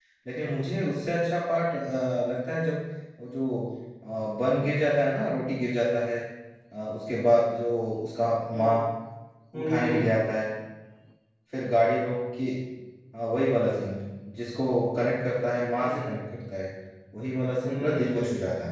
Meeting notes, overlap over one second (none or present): none